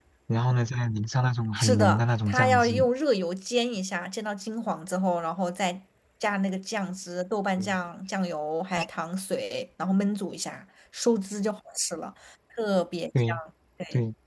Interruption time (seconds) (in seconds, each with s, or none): 1.6 s